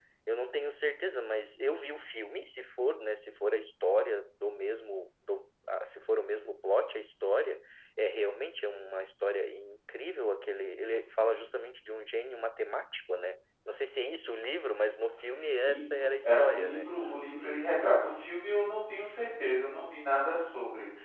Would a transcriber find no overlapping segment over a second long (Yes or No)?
No